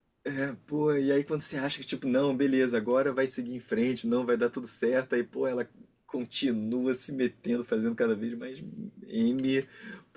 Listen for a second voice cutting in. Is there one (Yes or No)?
No